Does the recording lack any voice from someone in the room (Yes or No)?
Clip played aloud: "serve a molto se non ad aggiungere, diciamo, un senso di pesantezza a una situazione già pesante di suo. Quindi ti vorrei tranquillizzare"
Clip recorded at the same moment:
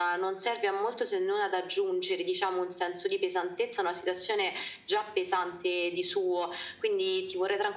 Yes